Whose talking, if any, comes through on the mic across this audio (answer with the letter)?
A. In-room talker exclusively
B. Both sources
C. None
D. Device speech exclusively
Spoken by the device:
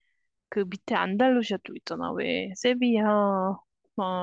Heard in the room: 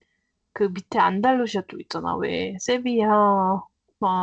D